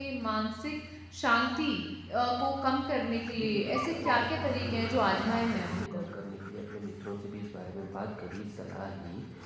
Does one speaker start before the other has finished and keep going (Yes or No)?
Yes